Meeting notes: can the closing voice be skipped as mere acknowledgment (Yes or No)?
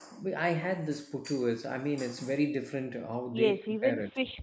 No